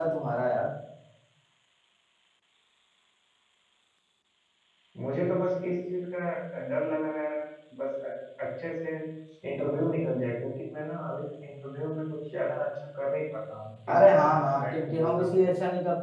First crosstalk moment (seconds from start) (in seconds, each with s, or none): 13.9 s